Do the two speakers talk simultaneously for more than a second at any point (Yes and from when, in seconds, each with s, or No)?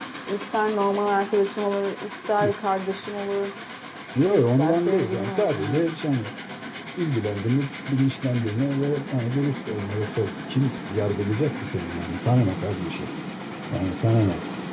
Yes, from 4.3 s